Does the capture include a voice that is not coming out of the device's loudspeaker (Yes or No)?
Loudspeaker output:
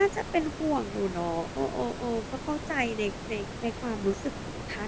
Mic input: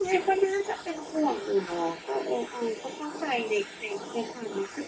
No